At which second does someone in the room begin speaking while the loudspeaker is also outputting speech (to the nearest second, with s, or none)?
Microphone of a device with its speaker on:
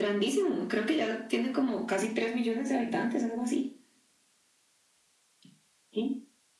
none